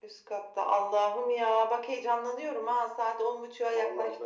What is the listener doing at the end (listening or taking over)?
taking over